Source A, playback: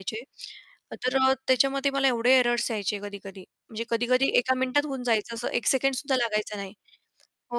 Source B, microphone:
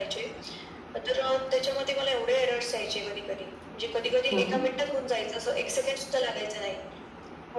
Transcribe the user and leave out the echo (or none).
हां.